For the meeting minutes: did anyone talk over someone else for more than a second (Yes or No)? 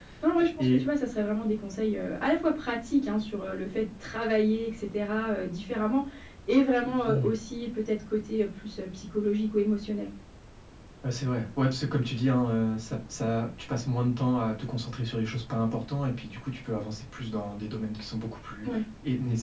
No